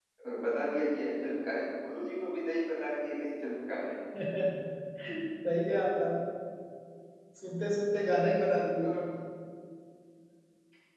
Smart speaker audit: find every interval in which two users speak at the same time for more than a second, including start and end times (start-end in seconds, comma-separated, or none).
none